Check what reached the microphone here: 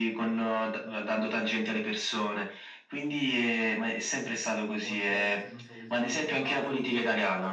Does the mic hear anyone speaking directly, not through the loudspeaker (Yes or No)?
Yes